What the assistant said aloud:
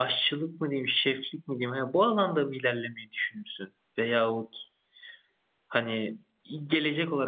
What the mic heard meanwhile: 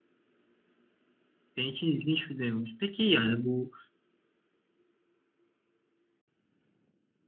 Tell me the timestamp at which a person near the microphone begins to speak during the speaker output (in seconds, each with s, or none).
1.6 s